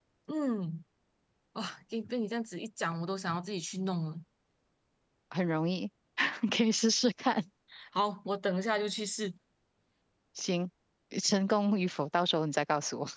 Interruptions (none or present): none